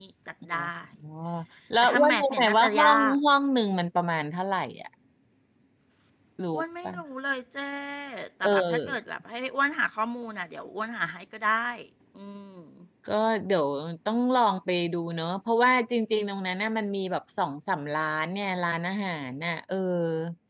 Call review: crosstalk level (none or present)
present